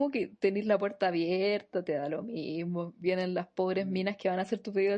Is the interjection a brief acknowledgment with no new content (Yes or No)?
Yes